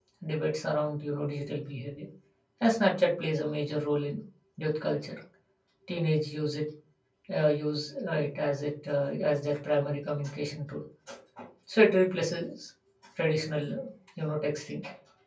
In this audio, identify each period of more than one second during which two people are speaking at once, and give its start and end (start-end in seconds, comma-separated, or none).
none